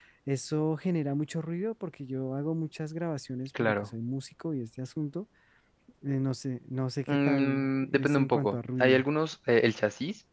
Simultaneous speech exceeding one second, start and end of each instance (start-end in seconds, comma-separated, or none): 7.1-9.0